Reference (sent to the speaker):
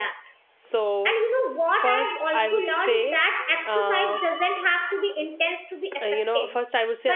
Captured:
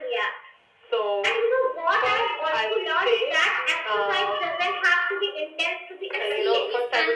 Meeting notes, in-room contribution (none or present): present